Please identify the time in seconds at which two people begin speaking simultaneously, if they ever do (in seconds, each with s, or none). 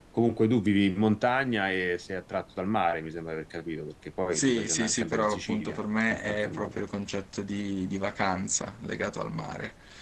4.3 s